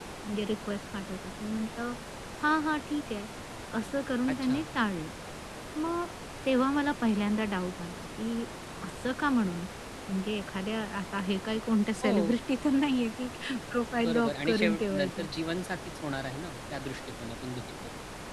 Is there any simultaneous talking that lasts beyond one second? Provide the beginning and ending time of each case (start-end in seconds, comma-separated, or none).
14.0-15.3